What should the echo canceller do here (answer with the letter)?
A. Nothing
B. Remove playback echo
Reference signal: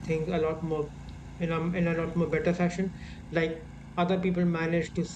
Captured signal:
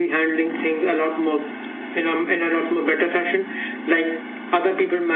B